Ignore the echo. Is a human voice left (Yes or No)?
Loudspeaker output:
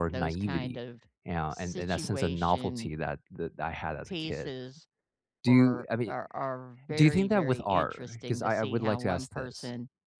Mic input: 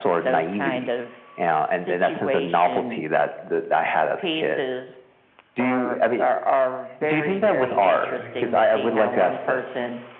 No